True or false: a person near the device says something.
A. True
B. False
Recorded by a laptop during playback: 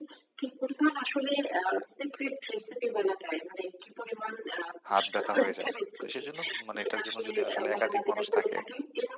A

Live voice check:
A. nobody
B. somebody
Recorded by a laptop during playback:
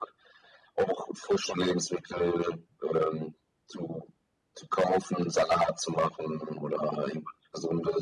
A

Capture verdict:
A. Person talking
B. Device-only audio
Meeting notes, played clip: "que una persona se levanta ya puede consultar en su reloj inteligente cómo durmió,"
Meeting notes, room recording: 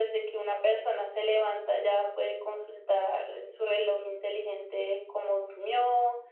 B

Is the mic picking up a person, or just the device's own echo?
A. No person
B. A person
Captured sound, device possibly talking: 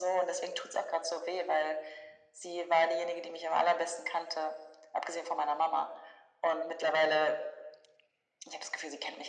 A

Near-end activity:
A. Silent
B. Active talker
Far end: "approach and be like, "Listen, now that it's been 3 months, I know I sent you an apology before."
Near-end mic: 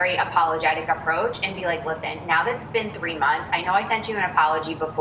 A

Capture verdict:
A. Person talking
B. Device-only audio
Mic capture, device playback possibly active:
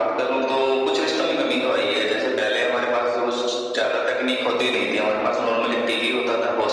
B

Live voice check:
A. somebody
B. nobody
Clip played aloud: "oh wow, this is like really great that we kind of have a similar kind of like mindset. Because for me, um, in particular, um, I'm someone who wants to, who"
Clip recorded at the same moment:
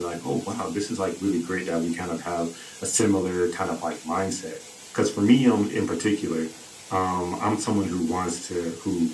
B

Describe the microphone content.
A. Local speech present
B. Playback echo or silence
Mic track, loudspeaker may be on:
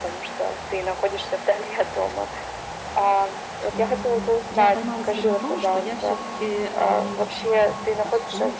A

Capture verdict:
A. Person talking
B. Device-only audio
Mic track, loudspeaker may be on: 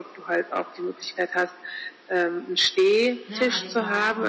A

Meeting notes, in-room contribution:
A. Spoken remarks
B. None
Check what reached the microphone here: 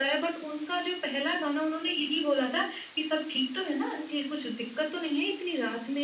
B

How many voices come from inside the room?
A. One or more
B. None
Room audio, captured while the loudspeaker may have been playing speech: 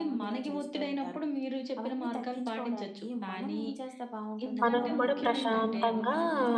A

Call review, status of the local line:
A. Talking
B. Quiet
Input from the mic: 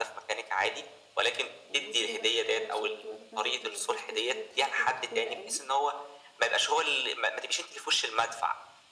A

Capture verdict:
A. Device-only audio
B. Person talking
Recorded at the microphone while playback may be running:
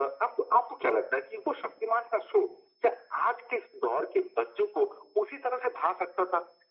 A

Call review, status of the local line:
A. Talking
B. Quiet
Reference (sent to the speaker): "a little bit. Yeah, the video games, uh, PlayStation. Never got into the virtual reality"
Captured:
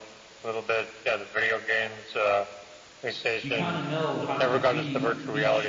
A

